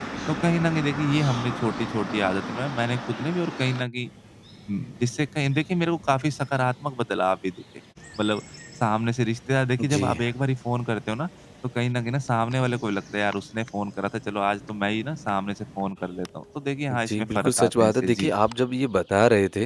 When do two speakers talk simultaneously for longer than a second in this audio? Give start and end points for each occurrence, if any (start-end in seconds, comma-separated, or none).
16.9-18.3